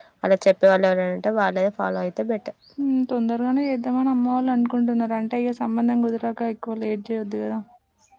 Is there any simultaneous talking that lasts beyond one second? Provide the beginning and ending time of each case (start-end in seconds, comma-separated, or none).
none